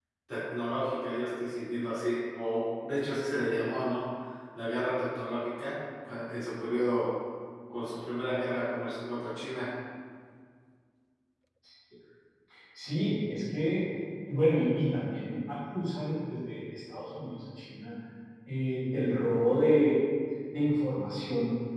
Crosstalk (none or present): none